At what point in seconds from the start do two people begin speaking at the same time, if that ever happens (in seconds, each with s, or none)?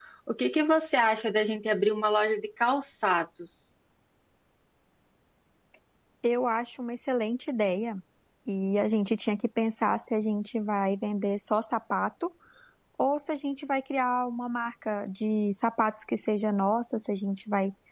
none